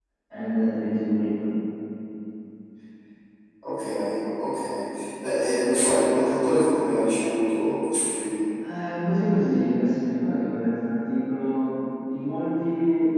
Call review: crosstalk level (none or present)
none